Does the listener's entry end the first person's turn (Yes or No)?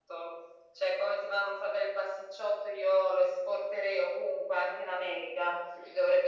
No